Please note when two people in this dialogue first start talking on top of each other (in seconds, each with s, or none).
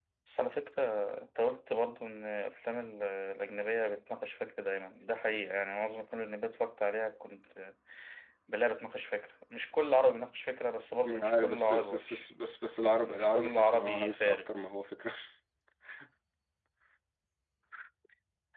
11.0 s